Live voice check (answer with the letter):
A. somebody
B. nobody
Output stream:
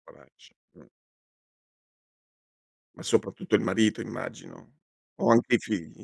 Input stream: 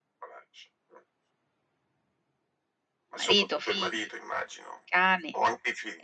A